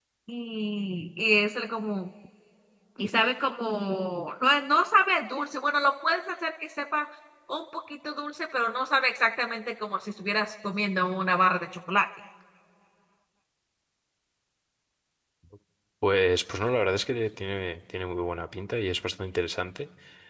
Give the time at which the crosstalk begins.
none

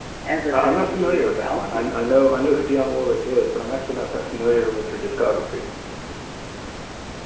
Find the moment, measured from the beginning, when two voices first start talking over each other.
0.5 s

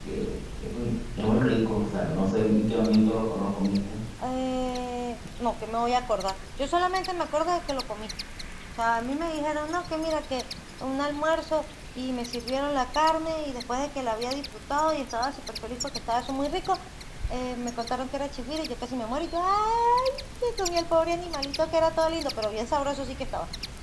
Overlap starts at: none

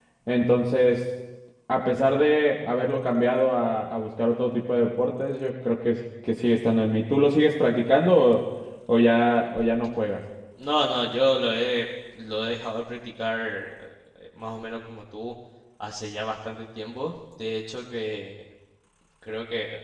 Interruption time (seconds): none

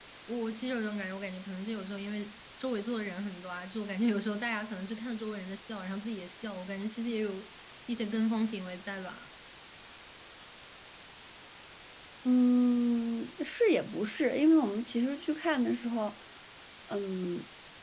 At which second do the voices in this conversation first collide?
none

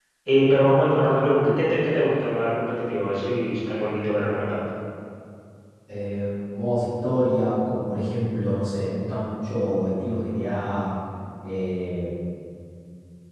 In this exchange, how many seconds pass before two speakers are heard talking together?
none

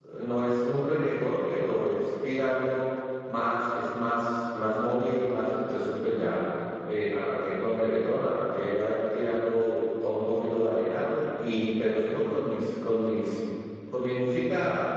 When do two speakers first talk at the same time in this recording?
none

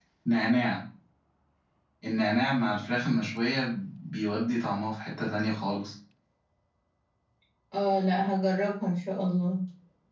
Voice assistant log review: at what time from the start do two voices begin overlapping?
none

